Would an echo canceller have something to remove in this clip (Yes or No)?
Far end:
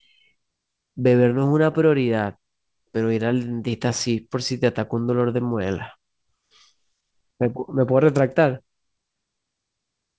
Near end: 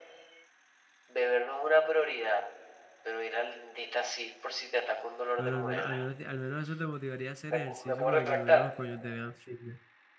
Yes